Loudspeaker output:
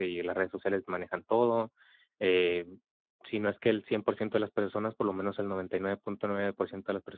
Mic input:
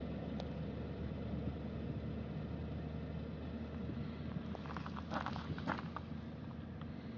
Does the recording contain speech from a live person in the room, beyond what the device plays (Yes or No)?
No